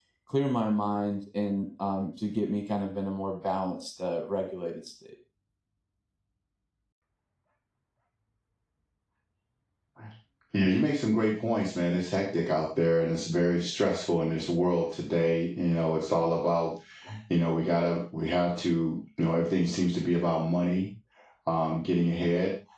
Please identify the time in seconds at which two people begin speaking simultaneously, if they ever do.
none

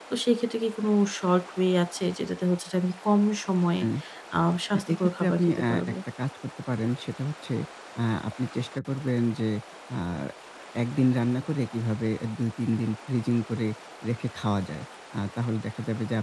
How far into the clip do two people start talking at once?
5 s

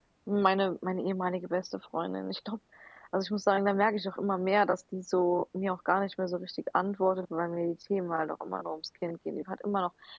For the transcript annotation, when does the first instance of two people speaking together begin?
none

